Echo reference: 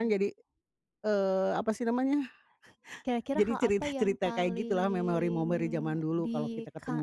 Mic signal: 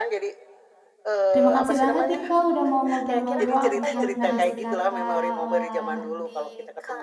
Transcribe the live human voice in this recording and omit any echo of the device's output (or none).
Terima kasih banget nih, Kak, udah mau ngobrol-ngobrol tentang tradisi Kakak. Wah,